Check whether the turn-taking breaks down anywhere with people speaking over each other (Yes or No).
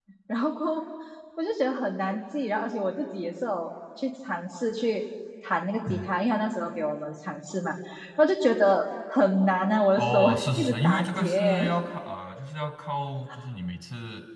Yes